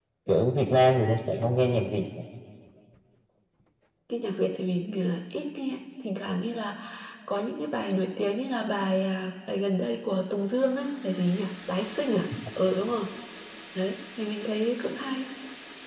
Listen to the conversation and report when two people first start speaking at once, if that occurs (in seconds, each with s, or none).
none